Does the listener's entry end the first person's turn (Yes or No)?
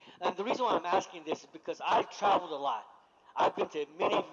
No